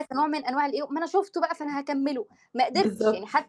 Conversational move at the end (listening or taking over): listening